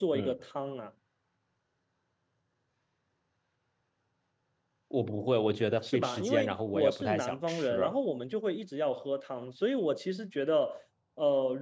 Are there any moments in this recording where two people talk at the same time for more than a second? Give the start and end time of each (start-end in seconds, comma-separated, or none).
5.8-7.8